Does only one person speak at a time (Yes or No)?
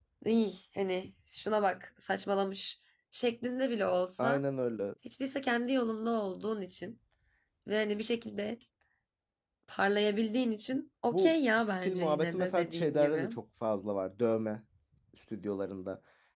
No